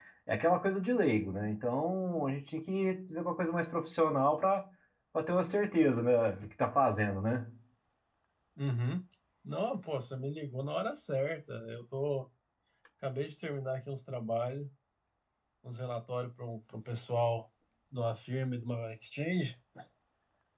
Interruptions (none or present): none